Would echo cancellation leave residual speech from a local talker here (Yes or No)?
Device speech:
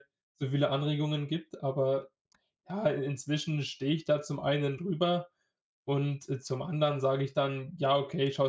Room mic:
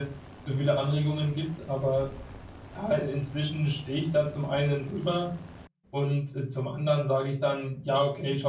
No